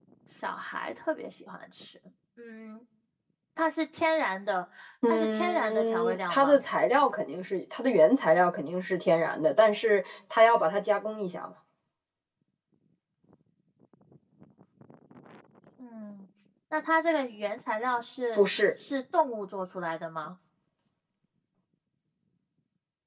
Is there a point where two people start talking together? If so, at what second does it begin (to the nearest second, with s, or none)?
5 s